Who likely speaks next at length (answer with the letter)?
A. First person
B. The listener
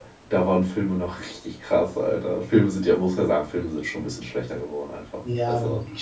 B